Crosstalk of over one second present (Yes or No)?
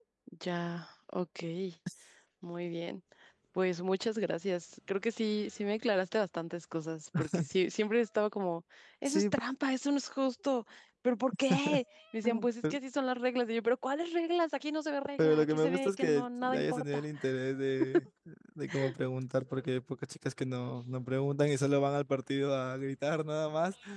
Yes